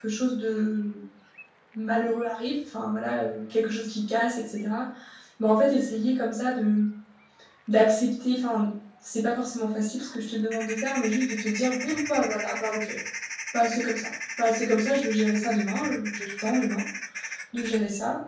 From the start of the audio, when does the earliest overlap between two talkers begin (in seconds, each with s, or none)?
none